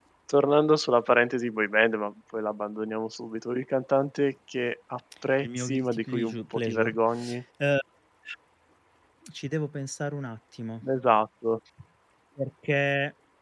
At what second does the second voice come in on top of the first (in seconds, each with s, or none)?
5.4 s